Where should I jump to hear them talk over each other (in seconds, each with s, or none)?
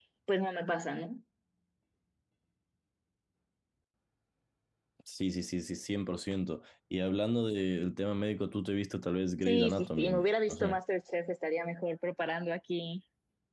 9.4 s